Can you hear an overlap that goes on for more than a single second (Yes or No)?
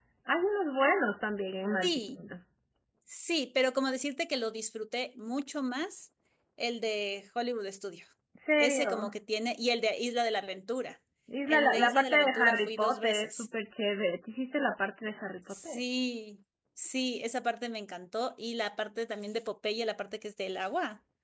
Yes